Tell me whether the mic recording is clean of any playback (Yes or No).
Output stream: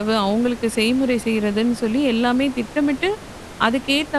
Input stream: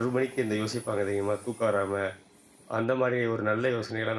Yes